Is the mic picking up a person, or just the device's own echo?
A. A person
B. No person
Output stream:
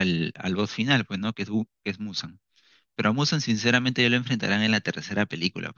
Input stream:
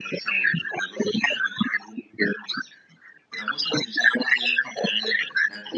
B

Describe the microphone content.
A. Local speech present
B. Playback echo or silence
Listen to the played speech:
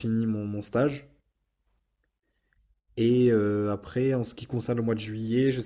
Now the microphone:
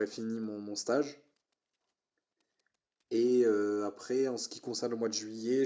B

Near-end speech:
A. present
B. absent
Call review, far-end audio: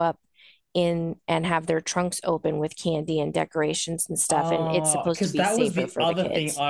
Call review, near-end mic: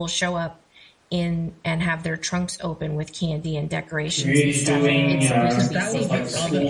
A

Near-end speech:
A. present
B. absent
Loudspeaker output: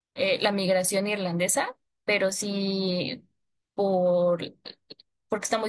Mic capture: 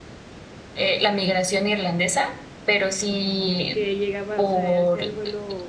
A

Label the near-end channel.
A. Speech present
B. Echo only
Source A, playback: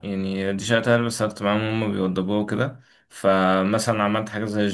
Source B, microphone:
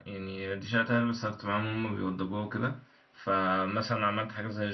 B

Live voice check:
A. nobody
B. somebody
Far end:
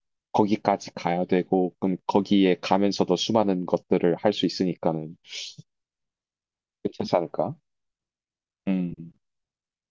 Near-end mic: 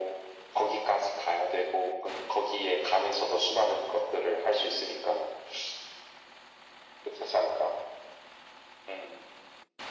A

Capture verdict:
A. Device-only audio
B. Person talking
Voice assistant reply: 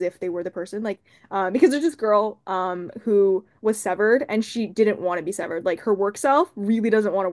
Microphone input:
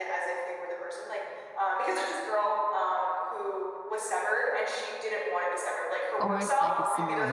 B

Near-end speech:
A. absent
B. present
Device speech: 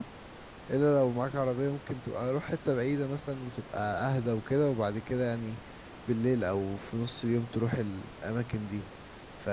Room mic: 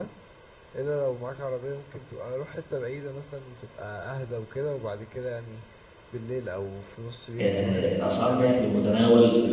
B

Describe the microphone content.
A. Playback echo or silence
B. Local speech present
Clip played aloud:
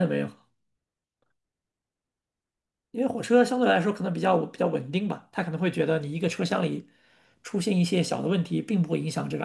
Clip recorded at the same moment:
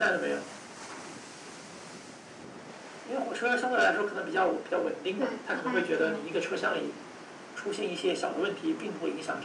B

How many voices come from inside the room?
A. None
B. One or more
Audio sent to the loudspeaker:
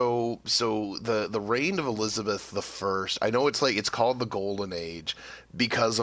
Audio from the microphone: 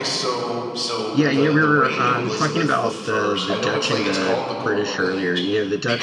B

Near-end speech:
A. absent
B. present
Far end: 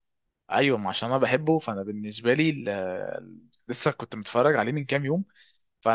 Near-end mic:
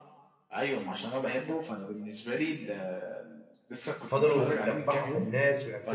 B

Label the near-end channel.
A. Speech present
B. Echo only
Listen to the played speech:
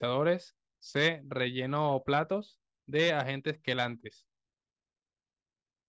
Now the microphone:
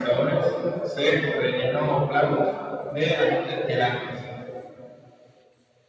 B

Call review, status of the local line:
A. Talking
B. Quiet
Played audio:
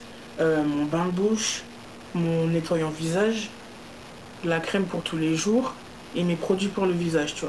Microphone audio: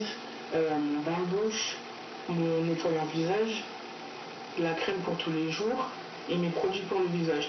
B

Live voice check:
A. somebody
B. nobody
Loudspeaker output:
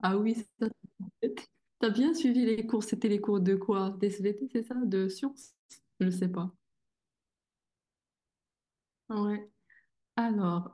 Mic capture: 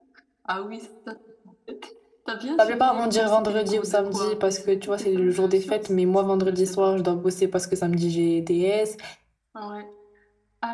A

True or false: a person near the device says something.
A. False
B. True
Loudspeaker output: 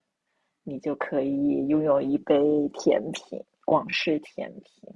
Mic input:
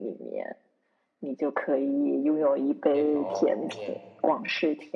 B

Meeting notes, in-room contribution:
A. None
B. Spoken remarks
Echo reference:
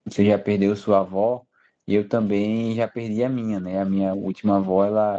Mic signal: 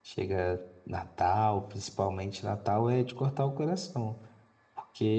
B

